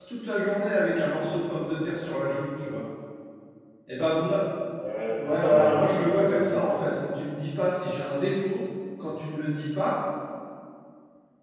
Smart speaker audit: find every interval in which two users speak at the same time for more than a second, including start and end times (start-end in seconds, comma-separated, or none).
5.2-6.5